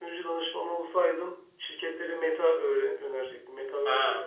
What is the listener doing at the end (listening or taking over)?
taking over